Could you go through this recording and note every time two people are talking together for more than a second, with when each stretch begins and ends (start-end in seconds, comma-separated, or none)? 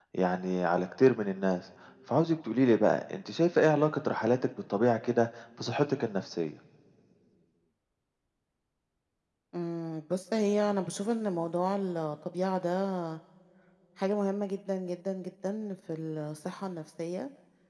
none